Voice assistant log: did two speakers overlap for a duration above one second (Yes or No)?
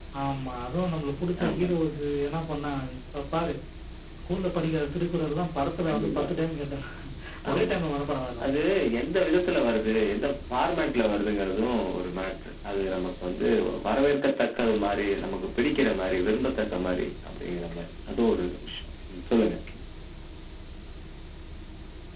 No